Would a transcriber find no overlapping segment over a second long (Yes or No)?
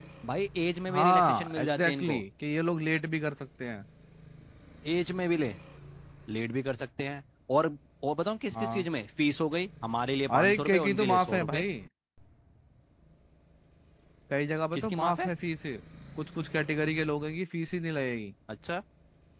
No